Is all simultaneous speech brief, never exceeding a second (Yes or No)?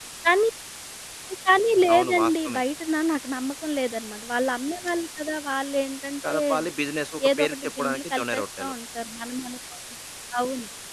No